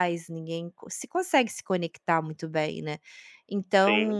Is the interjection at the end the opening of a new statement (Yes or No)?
No